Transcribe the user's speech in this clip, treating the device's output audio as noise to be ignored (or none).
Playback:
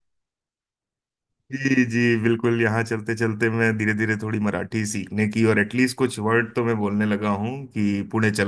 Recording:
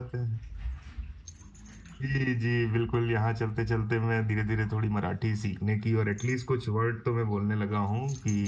none